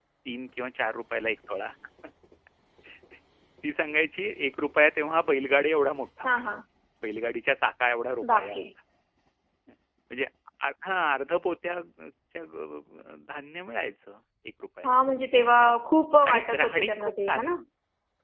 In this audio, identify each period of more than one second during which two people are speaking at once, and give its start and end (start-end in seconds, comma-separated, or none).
16.3-17.5